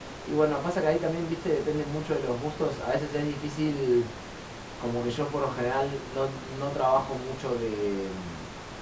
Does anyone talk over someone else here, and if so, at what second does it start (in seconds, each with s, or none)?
none